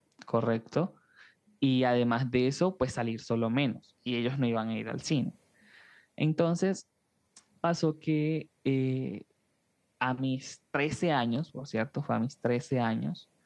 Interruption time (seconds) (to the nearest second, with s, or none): none